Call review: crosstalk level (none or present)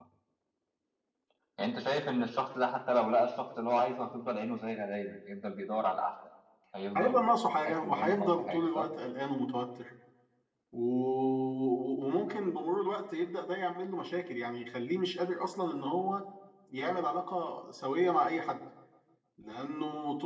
present